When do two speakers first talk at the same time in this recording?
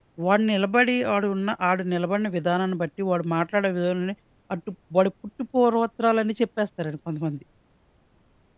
none

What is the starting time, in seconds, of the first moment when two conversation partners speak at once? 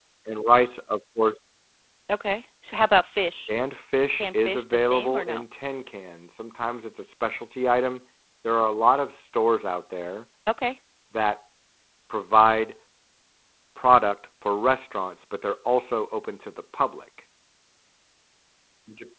4 s

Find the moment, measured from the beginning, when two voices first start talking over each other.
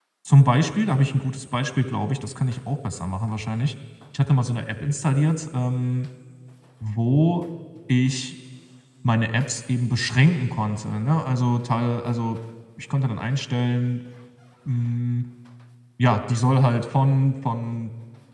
none

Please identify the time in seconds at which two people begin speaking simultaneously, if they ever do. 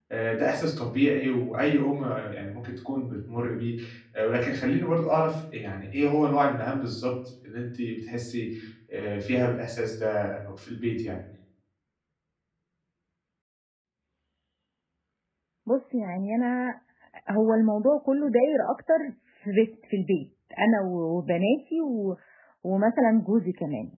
none

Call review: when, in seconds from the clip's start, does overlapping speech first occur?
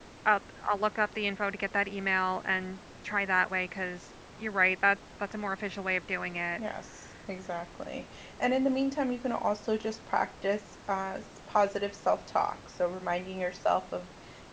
none

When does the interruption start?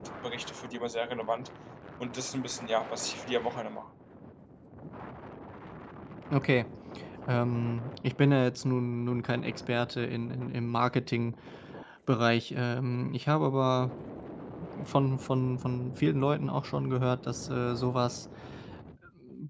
none

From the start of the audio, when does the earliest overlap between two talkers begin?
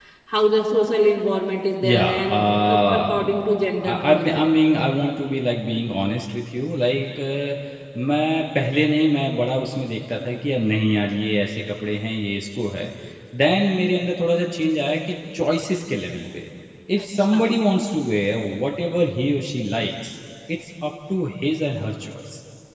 2 s

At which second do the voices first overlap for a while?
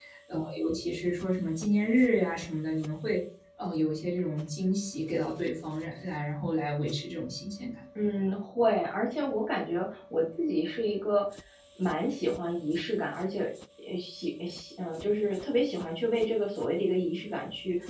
none

